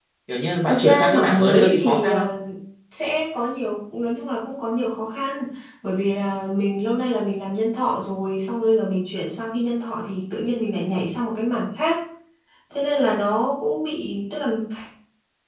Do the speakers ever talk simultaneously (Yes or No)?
Yes